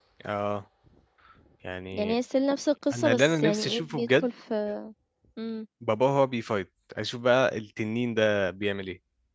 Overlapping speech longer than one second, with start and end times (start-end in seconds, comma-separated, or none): 2.9-4.3